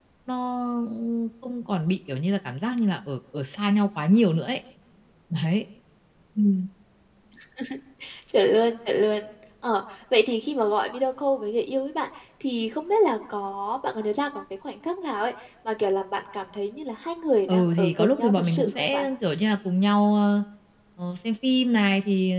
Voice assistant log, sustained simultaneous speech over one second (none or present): present